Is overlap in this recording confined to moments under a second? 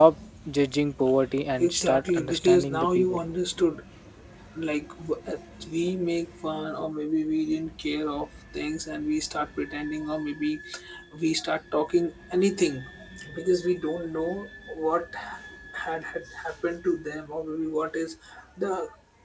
No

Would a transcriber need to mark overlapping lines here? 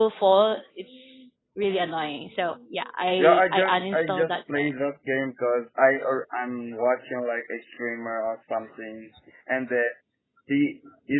Yes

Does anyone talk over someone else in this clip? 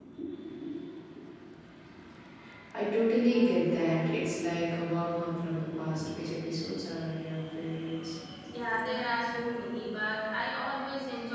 No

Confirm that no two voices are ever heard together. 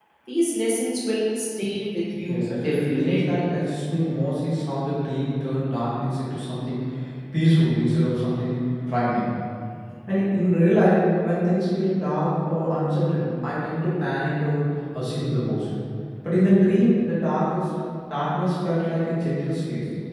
No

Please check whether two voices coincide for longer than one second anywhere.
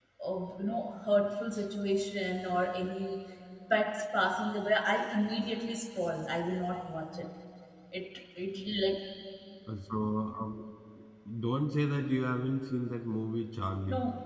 No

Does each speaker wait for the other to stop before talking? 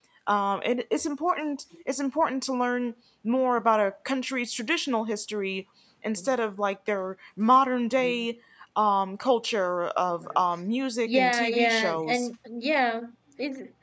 No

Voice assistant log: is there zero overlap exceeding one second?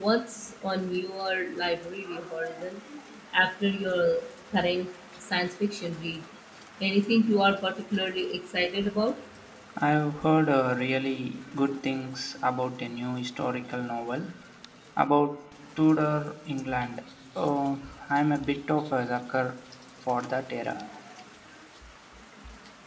Yes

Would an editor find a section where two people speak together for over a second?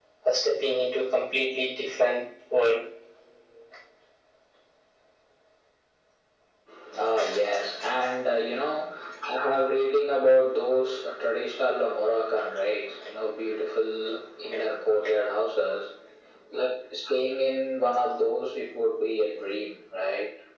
No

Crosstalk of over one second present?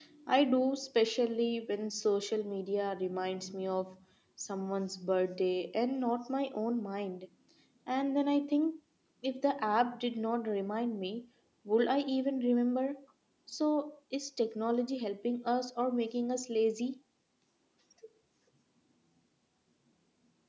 No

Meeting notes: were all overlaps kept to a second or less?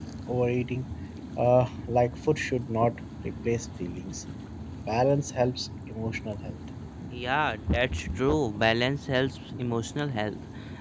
Yes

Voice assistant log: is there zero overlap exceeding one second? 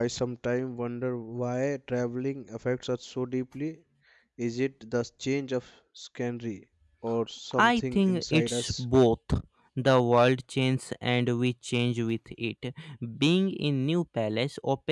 No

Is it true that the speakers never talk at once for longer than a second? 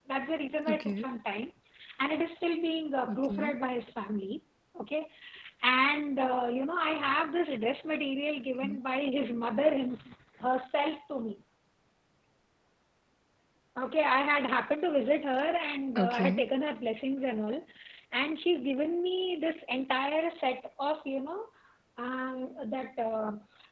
Yes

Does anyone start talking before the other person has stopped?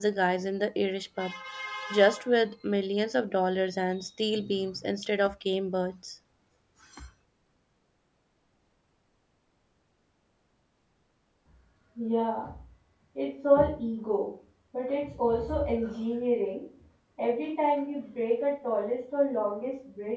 No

